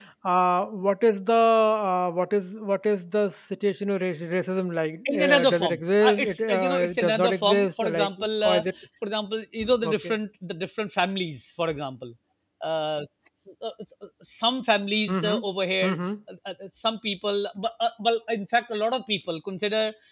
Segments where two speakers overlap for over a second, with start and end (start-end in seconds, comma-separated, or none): 5.1-8.6